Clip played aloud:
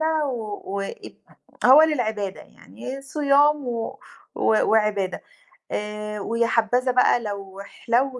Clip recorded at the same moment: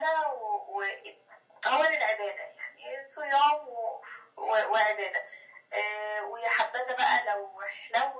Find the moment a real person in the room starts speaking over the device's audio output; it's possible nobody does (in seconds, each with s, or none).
none